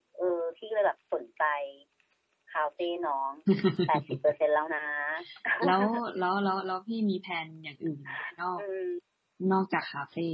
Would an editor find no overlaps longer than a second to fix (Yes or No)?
Yes